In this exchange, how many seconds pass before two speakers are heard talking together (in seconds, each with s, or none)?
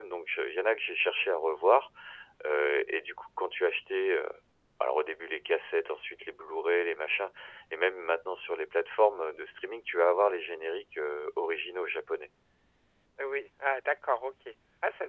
none